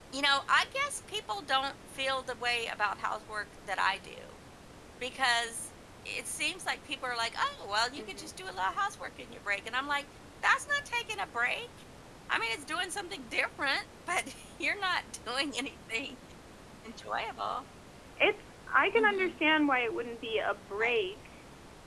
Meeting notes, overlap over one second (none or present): none